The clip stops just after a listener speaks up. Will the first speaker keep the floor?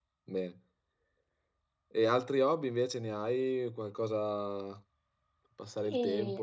No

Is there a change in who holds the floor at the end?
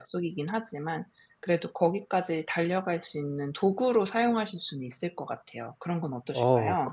Yes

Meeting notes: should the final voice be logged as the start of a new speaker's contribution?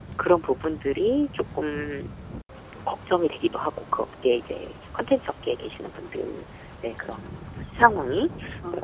No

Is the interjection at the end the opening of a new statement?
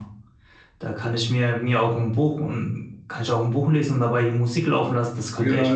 Yes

